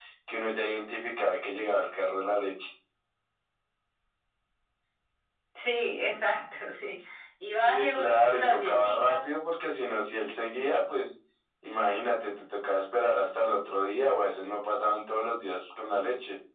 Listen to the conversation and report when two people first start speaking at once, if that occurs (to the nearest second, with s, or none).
8 s